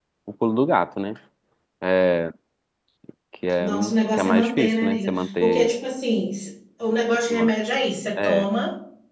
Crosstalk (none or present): present